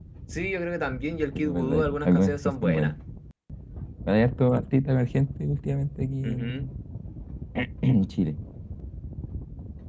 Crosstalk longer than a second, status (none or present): present